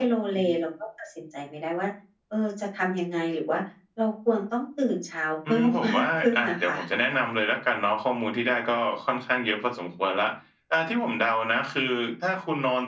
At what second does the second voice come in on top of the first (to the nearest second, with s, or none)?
5 s